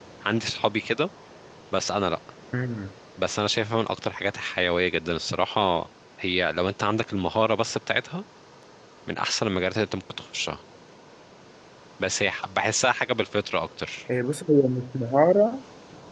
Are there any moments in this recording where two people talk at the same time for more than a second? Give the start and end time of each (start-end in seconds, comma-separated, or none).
none